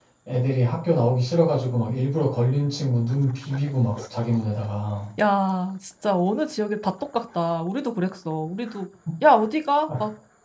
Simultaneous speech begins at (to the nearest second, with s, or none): none